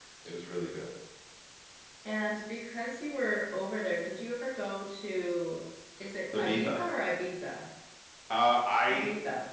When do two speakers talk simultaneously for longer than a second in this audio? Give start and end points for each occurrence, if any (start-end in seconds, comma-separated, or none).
none